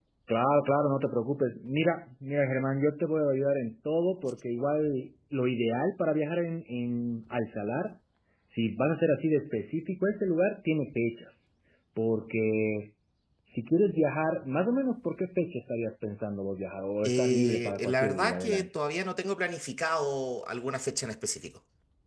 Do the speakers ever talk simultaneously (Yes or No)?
Yes